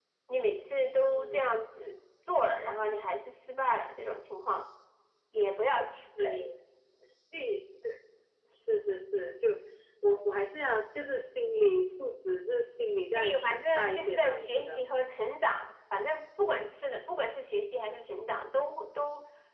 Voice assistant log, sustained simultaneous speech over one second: present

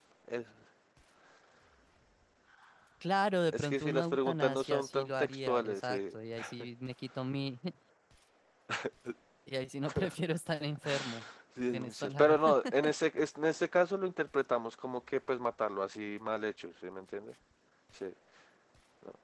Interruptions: present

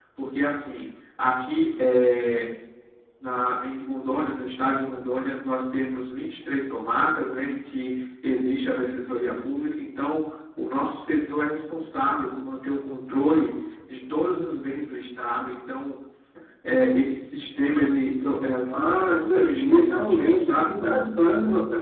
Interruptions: present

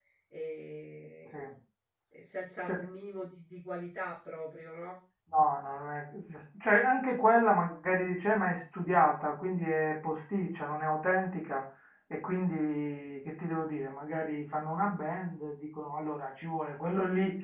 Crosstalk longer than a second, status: none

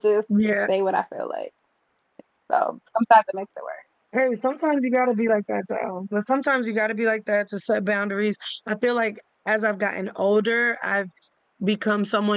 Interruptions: none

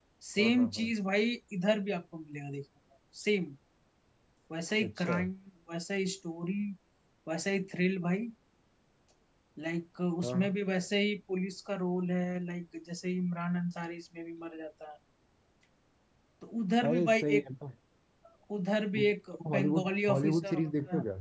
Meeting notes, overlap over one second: present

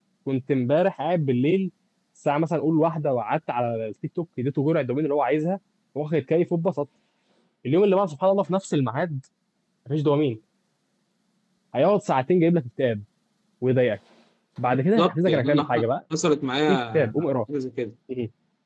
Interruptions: present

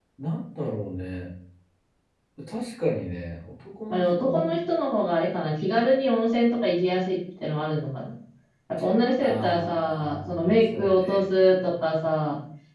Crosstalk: present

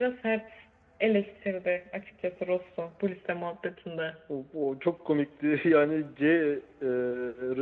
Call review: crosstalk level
none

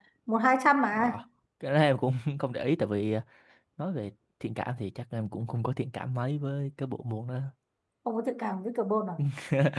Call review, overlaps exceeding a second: none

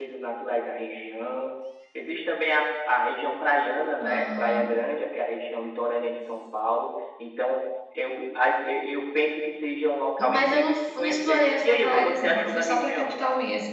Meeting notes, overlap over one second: present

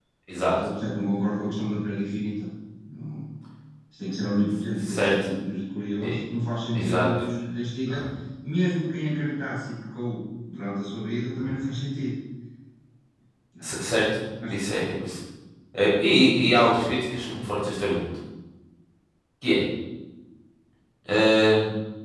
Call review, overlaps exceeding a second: none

